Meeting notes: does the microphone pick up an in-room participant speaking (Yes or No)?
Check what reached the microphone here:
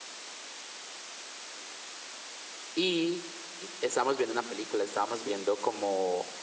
Yes